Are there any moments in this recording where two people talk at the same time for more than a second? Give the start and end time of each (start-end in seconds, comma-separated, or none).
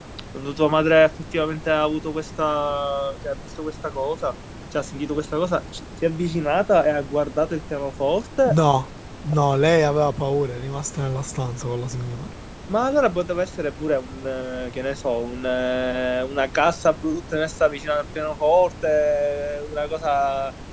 none